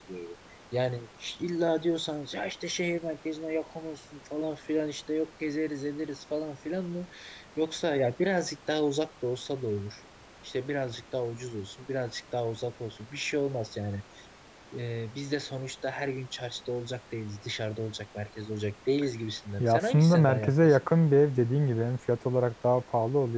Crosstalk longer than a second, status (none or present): present